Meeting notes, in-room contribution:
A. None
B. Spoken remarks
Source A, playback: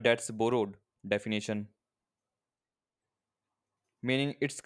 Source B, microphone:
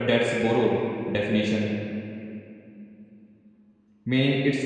A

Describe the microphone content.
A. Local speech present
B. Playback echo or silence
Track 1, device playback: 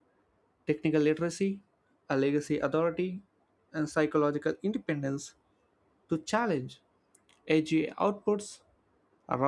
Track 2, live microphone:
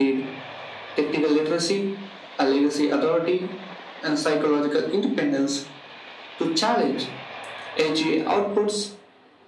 B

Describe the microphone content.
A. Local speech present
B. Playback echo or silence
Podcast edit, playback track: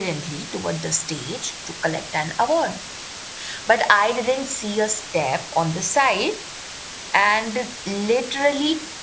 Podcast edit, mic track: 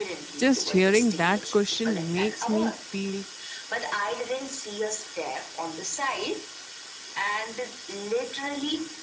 A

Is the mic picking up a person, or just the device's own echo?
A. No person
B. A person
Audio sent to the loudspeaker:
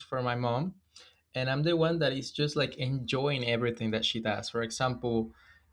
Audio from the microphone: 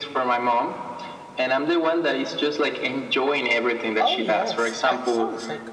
B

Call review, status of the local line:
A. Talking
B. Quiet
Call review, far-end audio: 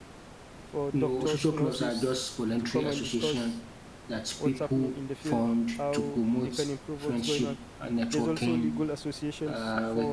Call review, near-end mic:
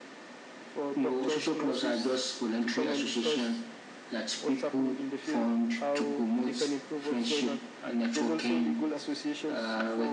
B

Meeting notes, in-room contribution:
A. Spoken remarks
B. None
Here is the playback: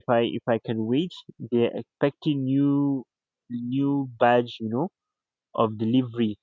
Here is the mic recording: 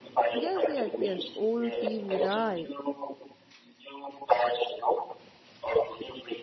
A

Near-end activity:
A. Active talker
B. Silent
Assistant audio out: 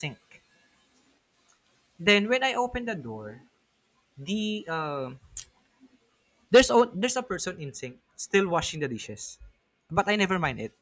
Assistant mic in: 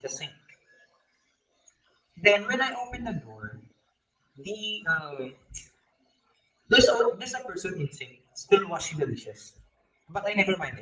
B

